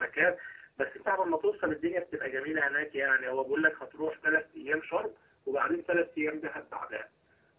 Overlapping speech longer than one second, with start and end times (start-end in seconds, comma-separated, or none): none